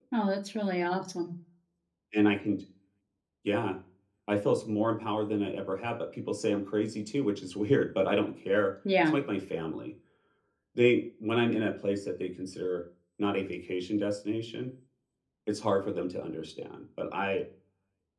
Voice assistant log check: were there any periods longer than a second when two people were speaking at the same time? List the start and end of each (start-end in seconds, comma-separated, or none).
none